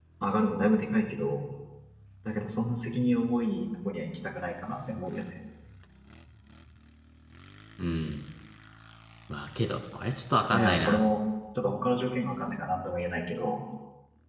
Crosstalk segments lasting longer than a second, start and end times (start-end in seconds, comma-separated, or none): none